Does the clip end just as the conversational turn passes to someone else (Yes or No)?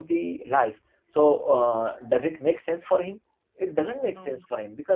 No